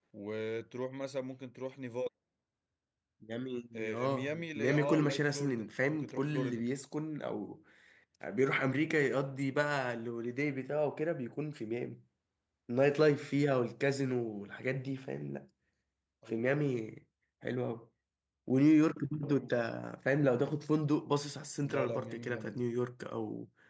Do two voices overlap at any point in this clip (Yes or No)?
Yes